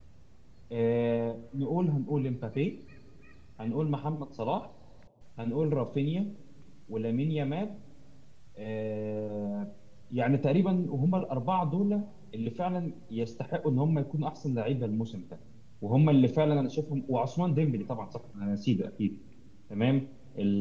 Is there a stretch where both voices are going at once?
No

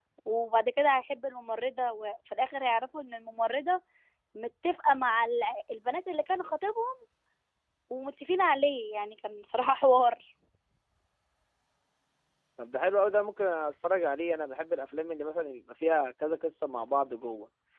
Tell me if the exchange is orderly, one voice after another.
Yes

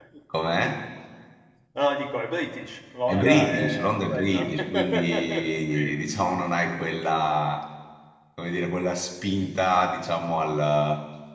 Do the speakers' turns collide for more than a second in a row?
Yes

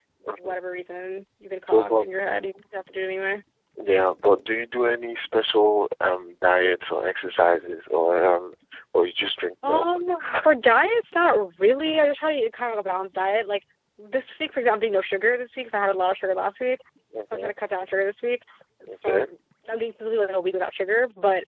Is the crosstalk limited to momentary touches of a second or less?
Yes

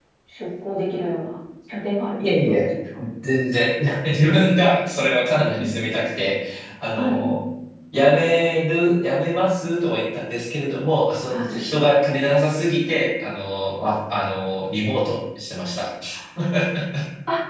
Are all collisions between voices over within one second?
Yes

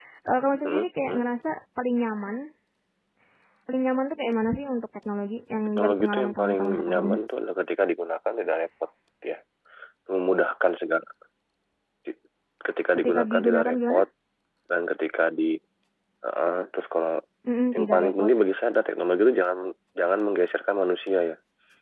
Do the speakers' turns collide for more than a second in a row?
Yes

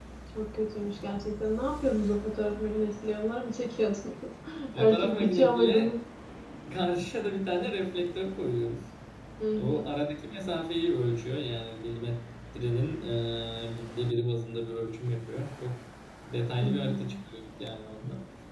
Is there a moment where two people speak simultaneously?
Yes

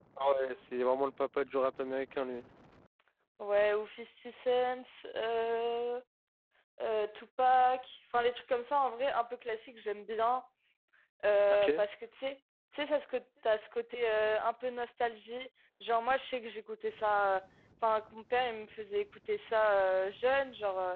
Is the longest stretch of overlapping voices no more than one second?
Yes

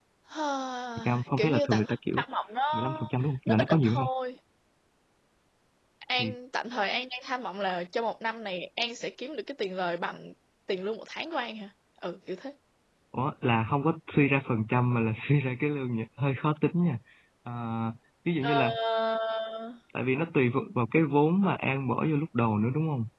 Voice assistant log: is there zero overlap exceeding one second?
No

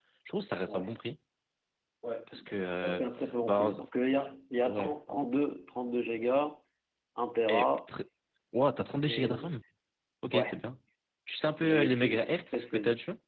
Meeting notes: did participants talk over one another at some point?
Yes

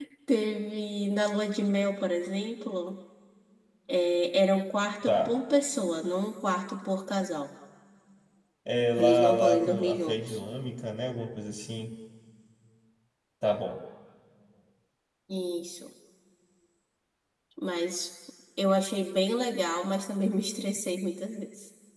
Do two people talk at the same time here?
Yes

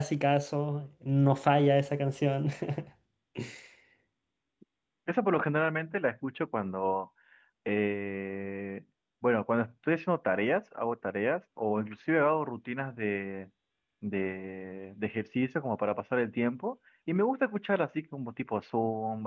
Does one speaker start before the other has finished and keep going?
No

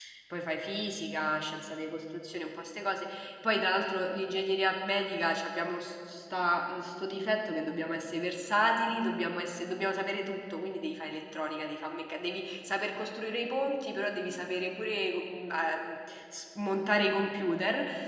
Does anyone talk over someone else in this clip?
No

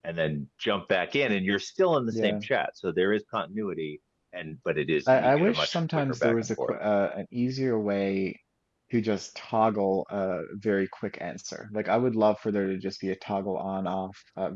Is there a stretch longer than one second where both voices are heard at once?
Yes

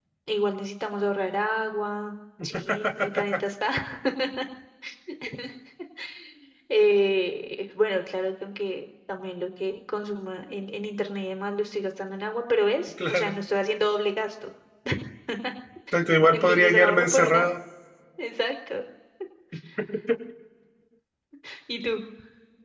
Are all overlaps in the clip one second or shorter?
No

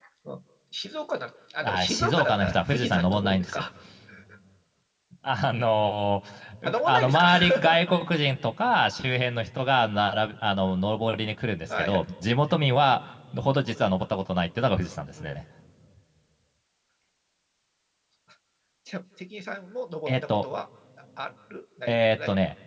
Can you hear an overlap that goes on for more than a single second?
Yes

